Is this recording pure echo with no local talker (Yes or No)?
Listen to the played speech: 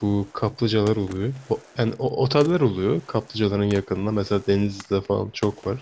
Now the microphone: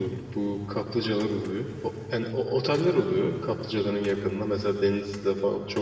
Yes